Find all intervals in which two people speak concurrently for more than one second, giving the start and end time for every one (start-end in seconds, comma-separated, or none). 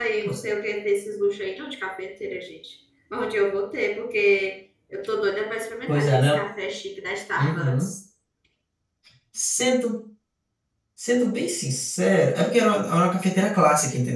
none